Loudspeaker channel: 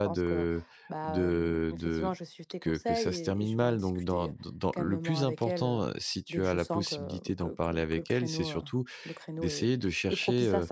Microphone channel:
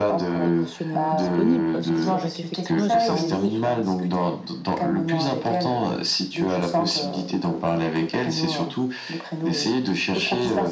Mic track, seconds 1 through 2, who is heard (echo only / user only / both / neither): both